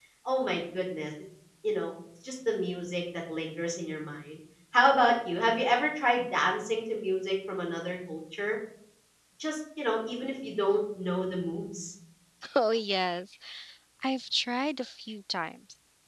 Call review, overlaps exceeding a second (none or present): none